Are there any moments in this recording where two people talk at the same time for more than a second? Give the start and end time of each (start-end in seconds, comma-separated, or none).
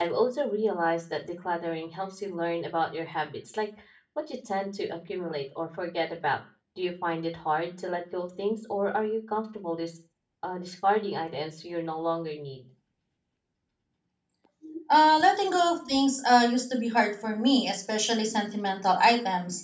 none